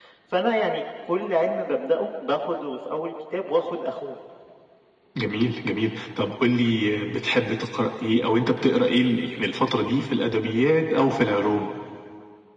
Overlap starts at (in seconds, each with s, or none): none